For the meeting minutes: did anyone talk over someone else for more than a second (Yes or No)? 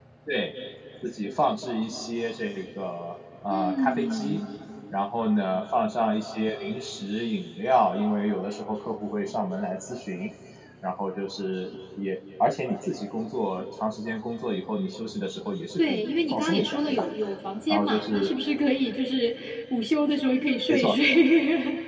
Yes